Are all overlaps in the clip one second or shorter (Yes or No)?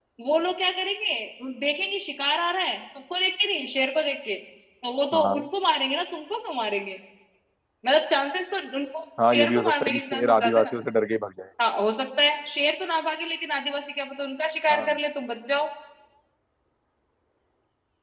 No